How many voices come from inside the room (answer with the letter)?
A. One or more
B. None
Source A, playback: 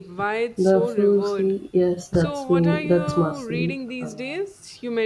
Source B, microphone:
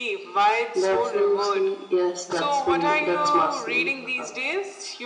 B